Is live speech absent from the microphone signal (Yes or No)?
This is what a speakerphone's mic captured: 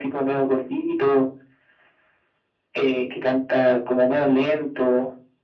Yes